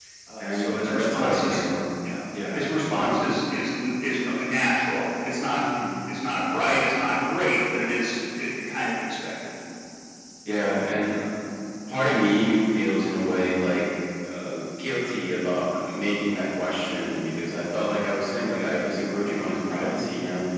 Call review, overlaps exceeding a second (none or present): present